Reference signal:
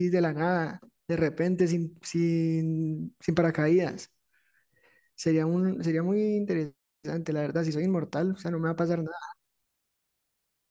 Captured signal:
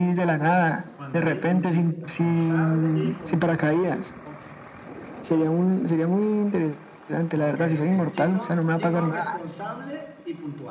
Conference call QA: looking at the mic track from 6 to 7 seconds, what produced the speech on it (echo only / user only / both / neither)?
echo only